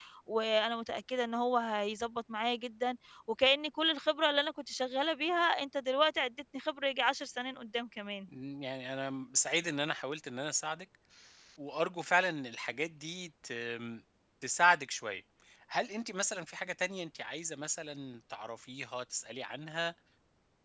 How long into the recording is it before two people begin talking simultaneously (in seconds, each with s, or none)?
none